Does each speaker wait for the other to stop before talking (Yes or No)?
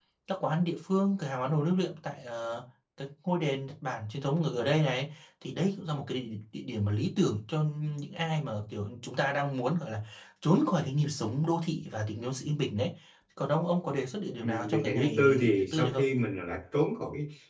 No